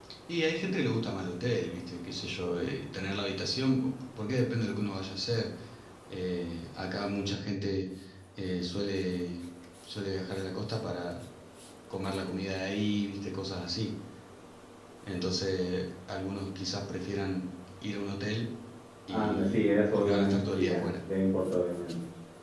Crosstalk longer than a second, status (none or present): present